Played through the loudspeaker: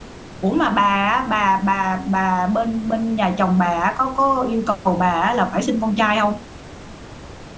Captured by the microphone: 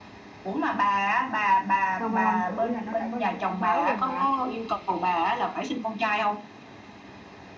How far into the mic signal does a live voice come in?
2 s

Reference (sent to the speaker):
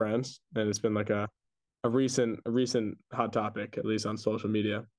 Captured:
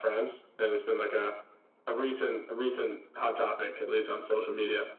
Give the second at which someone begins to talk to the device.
none

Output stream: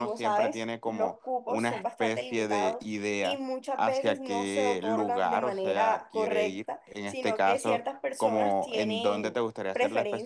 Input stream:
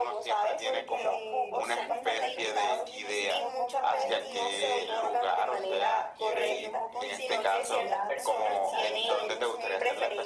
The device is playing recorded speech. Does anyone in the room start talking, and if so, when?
1 s

